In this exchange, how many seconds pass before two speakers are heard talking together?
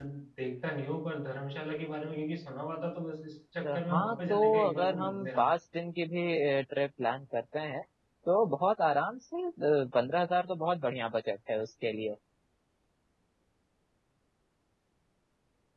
4 s

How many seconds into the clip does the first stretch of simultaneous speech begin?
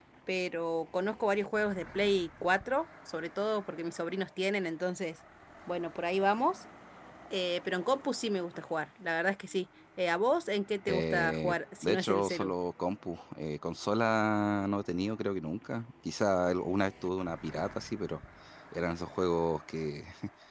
11 s

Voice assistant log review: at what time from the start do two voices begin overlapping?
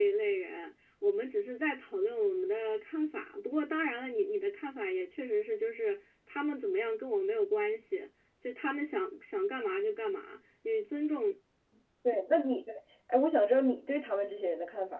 none

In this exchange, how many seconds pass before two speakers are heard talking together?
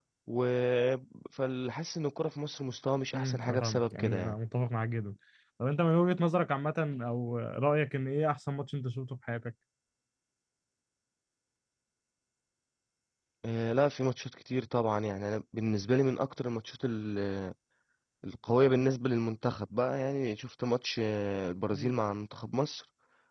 3 s

